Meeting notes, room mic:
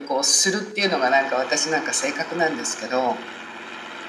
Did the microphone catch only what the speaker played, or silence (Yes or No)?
Yes